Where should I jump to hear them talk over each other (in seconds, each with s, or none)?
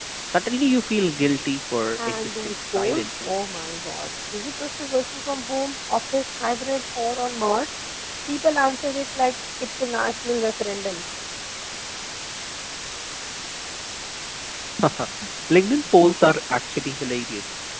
2.0 s